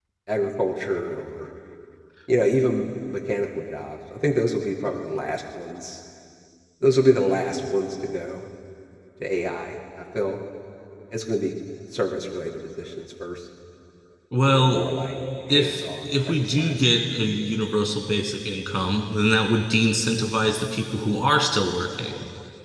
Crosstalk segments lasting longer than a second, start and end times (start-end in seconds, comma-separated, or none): 15.5-16.8